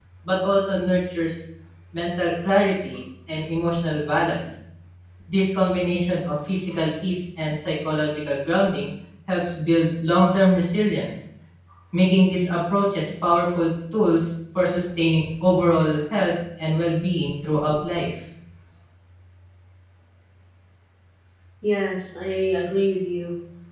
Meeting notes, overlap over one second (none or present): none